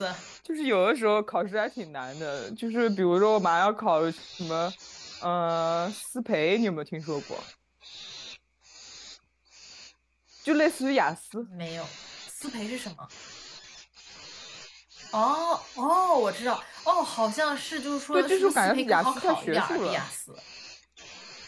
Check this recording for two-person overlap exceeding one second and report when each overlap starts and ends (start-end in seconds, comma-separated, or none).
18.1-20.0